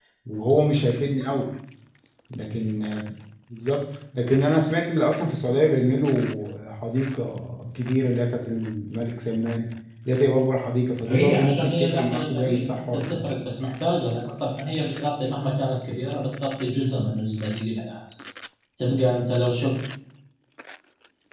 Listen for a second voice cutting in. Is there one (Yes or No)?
Yes